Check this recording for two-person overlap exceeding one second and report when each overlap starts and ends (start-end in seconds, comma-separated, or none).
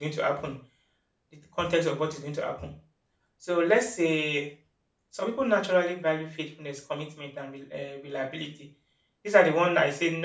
none